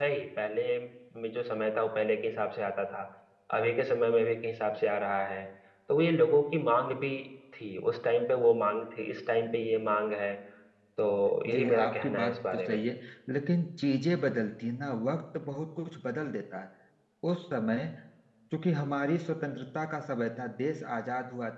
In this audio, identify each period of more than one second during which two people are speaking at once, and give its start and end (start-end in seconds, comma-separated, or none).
11.5-12.8